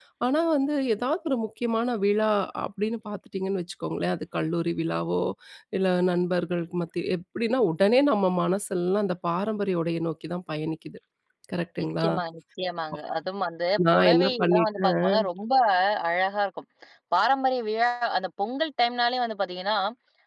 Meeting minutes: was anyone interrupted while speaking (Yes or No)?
Yes